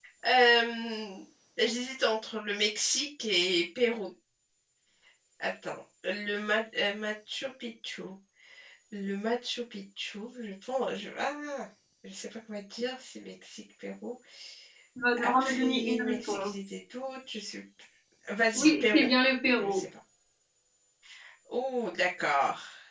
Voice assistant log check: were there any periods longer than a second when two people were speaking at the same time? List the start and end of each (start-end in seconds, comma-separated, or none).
15.2-16.5